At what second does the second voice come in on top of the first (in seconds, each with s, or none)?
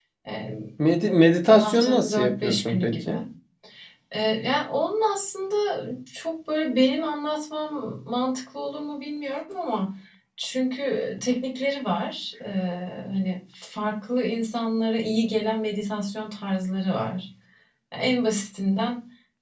1.6 s